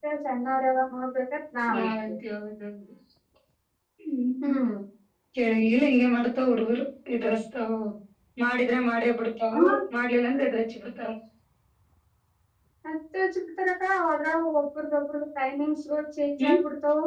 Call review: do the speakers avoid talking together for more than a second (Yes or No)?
Yes